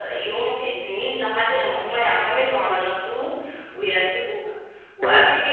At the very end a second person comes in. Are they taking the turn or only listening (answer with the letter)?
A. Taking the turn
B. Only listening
B